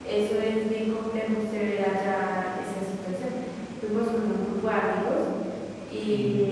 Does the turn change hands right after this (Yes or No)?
No